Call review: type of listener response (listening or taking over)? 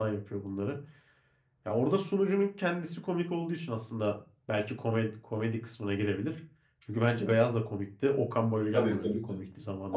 taking over